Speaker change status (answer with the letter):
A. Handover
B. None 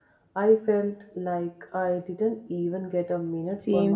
A